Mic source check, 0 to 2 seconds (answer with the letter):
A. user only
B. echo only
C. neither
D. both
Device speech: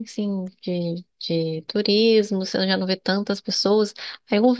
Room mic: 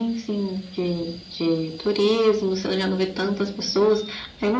B